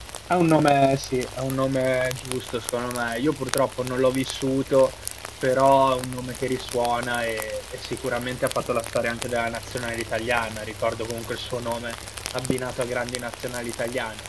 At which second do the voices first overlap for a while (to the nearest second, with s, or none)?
none